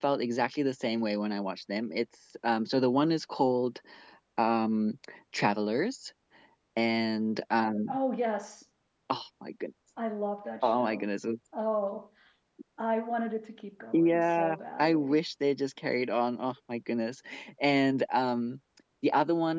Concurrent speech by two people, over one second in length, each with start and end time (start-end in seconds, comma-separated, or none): 13.9-15.2